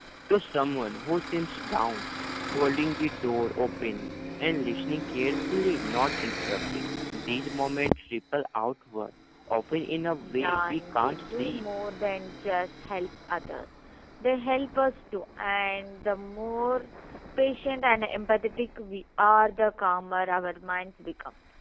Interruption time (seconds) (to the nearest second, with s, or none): 10 s